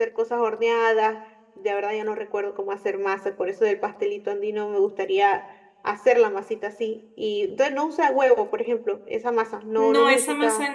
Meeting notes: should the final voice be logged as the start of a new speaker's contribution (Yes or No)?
Yes